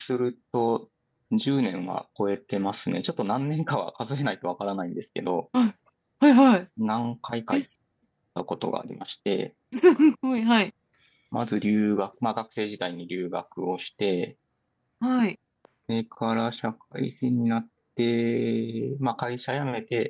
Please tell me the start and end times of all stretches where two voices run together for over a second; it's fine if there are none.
none

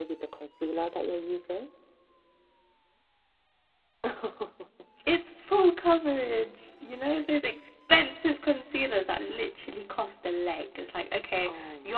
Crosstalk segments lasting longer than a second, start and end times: none

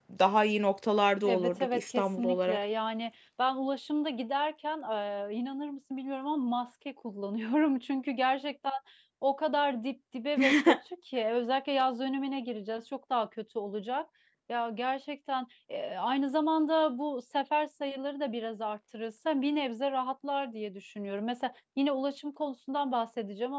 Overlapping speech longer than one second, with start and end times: 1.2-2.6

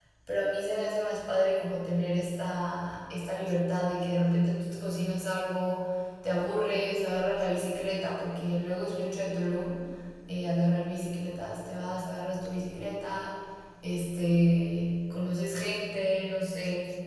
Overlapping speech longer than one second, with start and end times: none

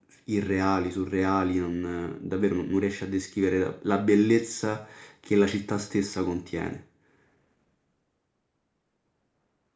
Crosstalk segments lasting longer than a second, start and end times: none

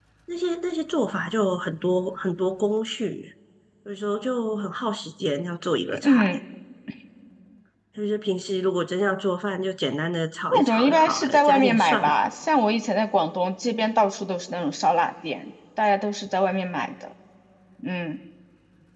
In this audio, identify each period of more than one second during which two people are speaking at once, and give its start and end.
10.5-12.3

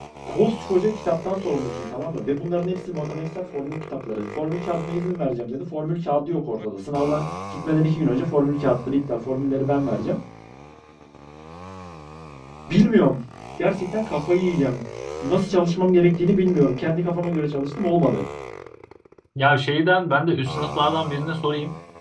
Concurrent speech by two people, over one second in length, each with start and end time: none

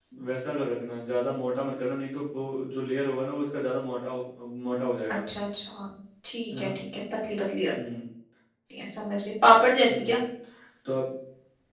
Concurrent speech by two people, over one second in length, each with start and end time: none

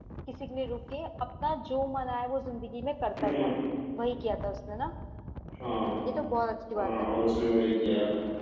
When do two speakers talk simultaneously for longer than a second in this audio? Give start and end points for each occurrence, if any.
none

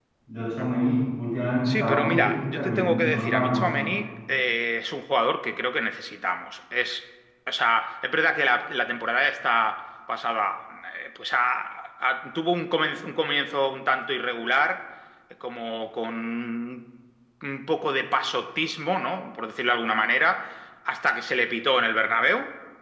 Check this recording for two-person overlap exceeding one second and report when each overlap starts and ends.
1.6-4.0

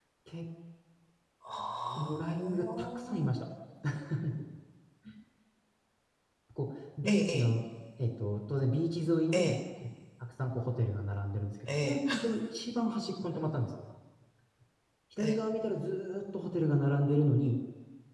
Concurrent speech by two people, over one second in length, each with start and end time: 2.0-3.3

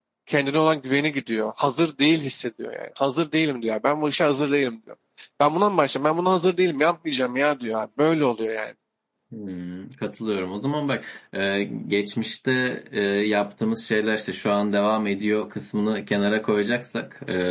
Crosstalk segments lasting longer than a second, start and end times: none

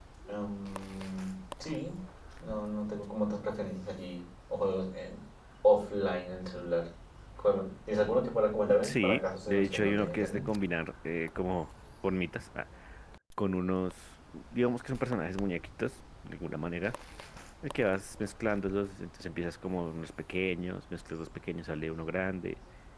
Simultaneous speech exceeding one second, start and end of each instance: 8.8-10.4

